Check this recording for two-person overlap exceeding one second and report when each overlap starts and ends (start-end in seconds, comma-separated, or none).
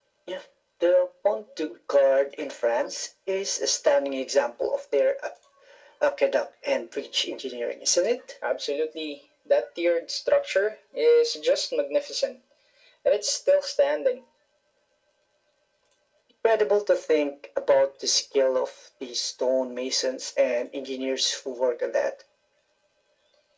none